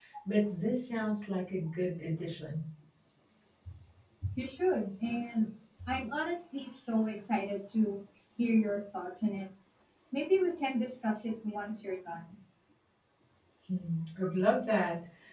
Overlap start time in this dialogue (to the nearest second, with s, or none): none